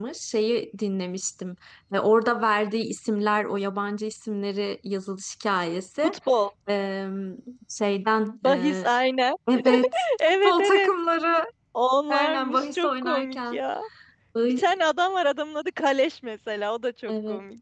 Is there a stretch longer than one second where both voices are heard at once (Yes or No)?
Yes